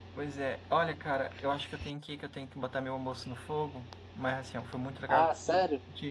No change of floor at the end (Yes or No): Yes